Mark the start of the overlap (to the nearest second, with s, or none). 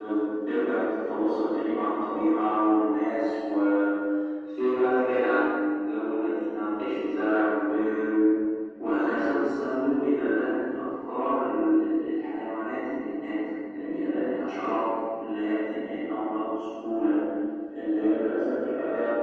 none